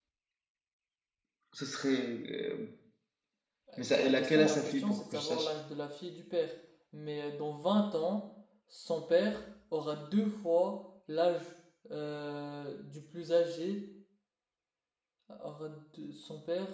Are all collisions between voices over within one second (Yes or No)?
No